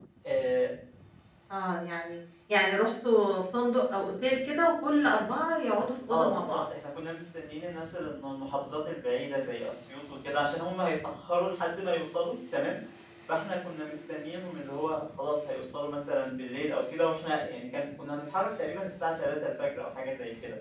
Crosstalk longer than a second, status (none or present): none